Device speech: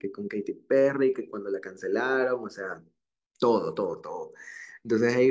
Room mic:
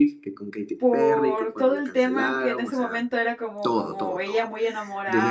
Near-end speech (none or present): present